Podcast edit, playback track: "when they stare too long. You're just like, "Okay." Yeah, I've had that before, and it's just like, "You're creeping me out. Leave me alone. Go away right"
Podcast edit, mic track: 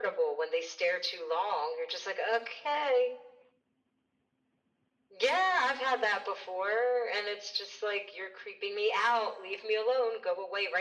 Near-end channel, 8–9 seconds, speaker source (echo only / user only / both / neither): echo only